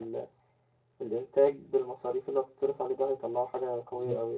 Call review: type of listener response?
taking over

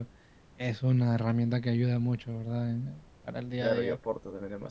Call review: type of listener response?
taking over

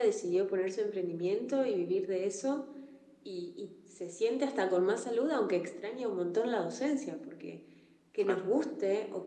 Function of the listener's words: listening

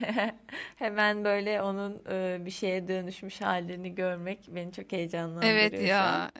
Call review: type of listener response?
taking over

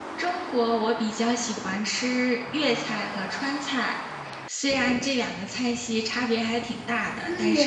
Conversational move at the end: taking over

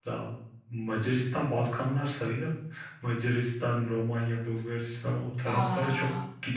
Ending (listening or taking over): listening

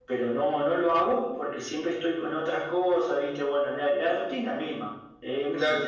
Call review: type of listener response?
taking over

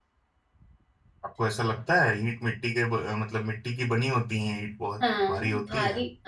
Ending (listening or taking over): taking over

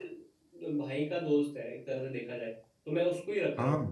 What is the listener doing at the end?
listening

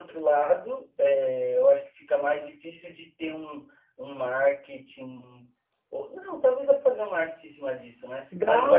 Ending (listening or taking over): listening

